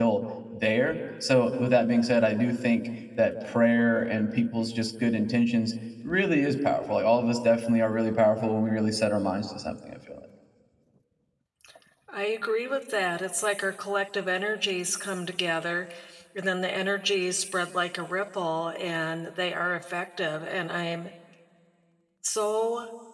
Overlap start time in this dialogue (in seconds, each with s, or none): none